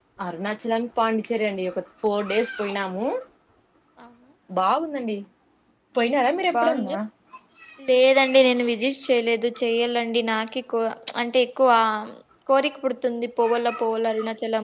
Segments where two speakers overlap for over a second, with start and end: none

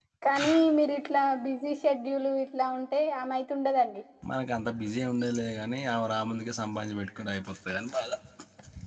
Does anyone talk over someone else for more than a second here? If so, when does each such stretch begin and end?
none

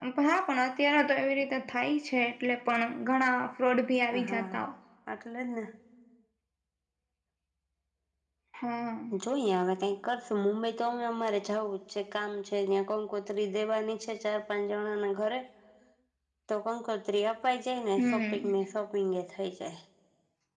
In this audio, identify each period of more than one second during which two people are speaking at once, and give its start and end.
none

